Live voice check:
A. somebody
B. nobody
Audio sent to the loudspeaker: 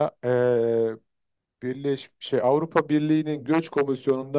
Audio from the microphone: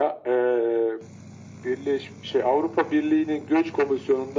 B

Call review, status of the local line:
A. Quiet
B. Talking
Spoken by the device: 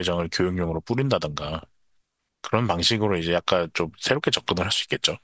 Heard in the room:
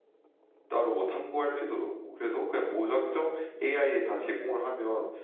B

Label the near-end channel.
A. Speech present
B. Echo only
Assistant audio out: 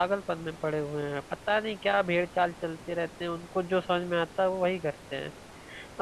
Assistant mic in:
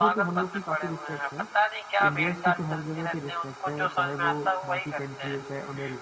A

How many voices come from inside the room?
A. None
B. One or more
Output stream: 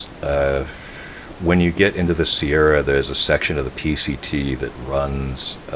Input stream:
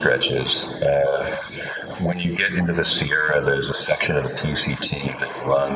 A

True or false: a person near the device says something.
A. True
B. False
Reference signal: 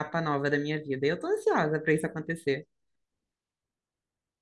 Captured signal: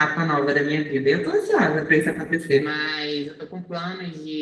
A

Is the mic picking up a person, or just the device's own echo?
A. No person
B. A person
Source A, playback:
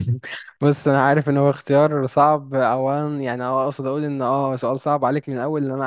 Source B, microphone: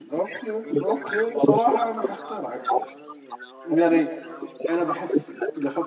B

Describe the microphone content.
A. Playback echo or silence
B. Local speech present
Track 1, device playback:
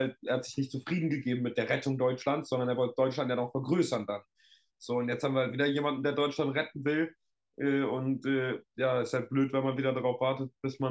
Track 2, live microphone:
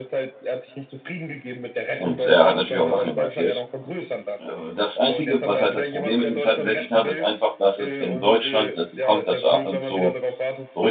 B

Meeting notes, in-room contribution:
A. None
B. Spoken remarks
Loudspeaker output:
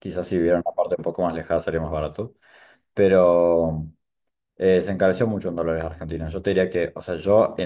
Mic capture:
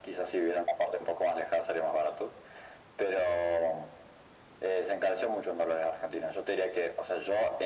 A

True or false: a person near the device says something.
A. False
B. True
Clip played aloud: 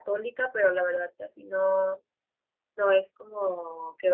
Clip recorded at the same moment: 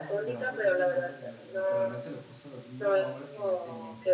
B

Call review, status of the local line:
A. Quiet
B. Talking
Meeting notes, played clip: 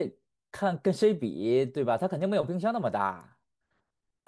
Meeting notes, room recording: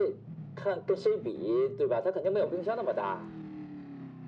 A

